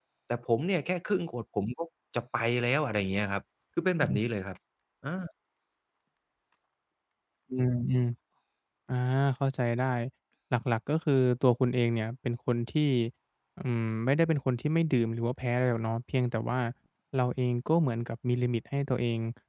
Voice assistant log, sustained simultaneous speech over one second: none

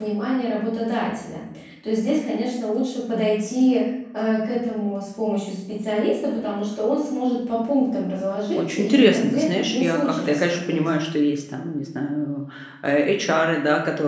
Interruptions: present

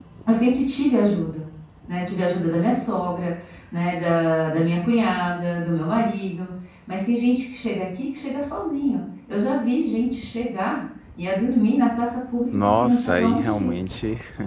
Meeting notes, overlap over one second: present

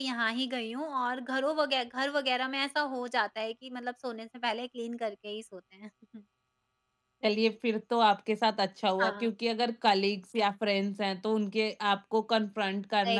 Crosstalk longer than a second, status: none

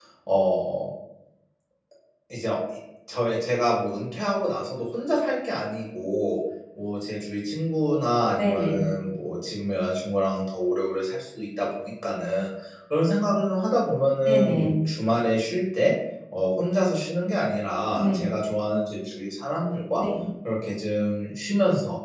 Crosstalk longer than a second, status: none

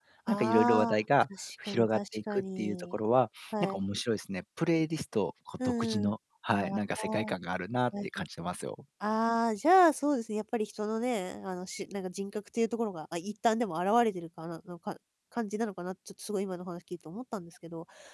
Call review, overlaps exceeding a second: present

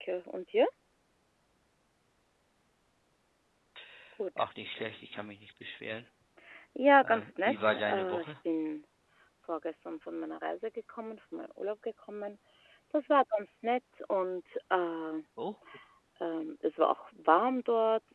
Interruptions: present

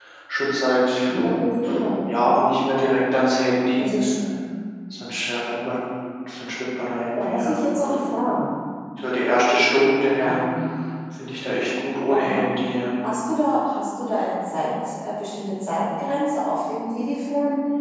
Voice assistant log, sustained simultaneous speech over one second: none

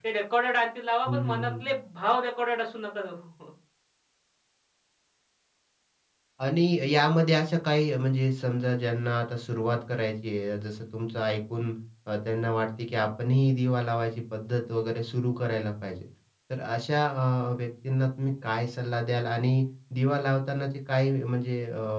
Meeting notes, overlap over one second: none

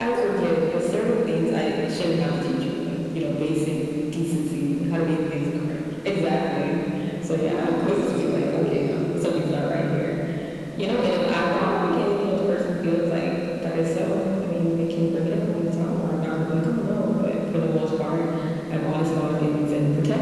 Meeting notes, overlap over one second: present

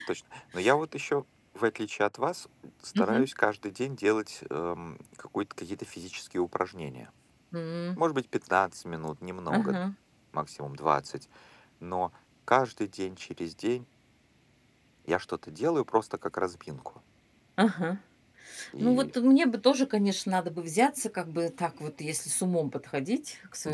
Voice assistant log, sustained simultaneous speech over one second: none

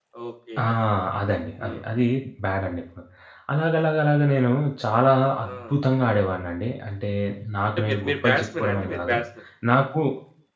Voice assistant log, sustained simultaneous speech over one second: present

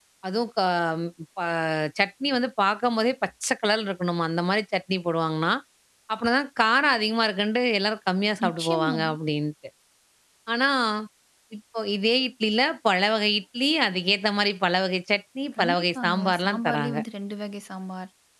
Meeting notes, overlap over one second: present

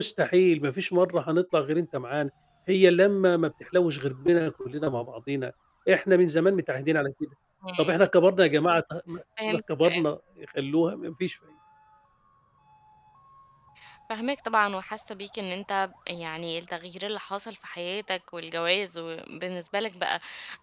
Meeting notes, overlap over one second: none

